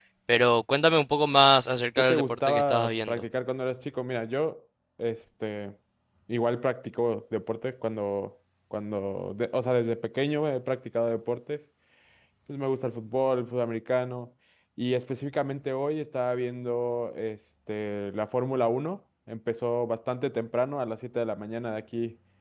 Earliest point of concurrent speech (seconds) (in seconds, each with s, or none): 2.0 s